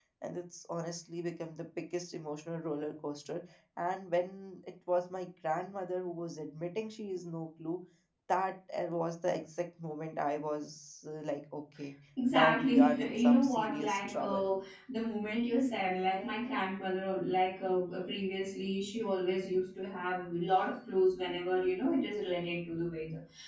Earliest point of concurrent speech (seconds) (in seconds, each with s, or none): 12.2 s